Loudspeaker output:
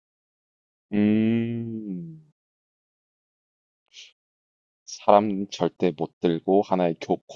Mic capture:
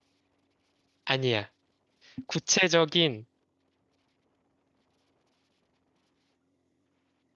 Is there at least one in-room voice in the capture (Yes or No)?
Yes